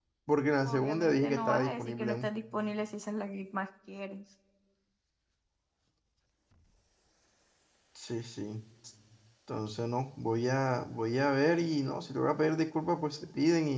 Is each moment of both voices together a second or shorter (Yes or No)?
No